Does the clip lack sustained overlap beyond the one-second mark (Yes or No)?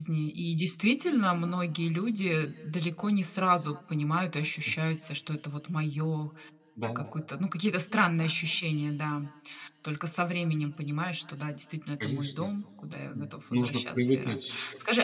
No